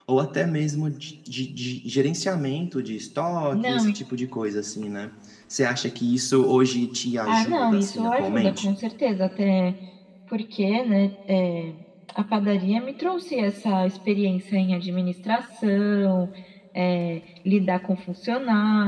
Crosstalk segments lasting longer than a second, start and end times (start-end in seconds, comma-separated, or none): 7.3-8.7